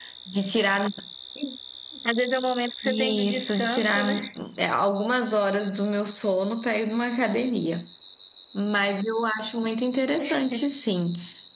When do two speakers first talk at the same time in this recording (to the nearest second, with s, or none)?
3 s